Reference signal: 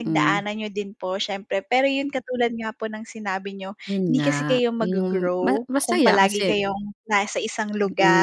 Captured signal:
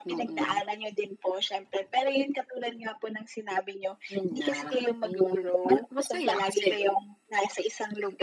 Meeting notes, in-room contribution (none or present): none